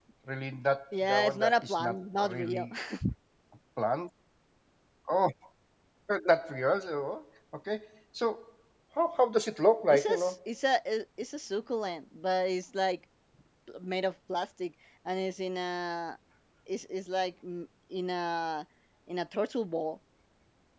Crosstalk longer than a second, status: present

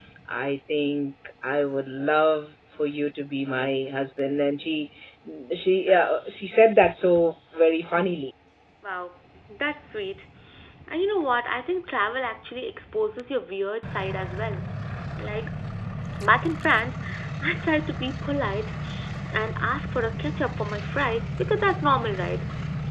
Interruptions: none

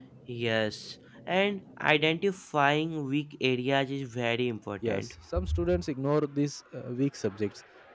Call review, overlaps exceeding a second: none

